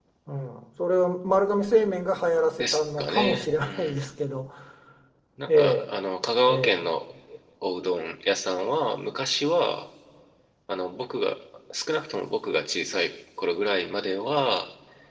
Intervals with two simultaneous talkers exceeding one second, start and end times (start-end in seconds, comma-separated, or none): 2.6-4.1